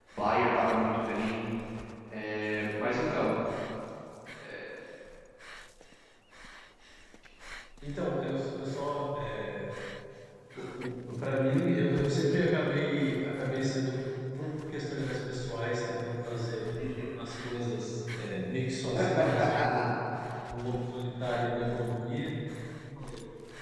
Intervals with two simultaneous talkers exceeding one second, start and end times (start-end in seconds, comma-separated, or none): none